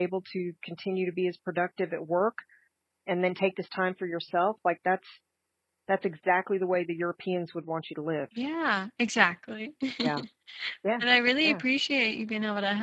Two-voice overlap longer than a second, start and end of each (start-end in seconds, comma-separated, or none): none